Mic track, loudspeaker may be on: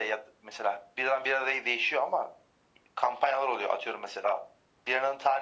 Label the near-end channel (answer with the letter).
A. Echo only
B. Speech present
A